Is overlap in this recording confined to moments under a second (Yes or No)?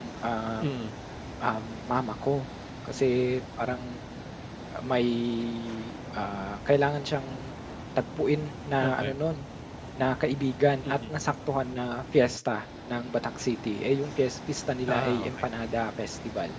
Yes